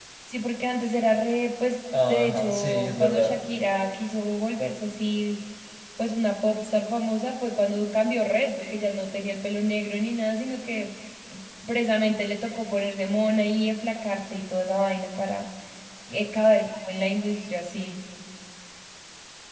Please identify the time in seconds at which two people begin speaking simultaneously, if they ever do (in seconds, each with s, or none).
1.9 s